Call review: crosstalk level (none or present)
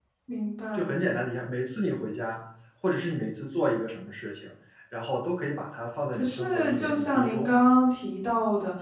present